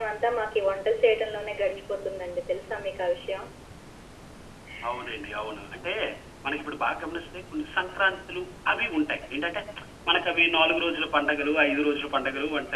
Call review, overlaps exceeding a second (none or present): none